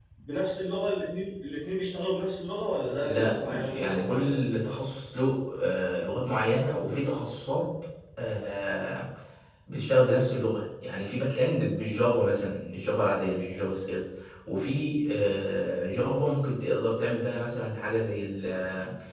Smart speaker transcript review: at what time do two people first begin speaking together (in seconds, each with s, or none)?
3.0 s